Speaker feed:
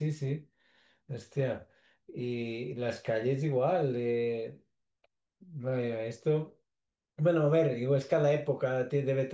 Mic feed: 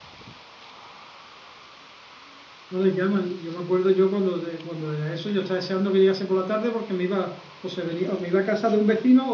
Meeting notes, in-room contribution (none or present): present